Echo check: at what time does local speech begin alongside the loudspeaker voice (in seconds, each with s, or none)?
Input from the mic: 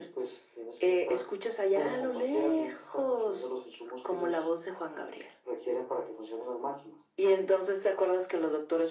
none